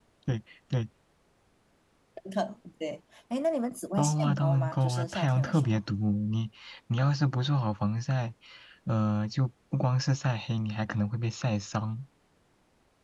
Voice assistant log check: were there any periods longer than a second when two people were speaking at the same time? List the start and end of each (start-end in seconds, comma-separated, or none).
4.0-5.8